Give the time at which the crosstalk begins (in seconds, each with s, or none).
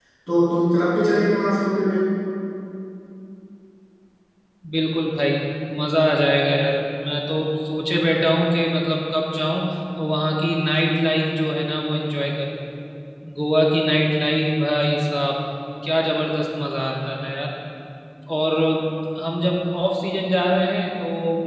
none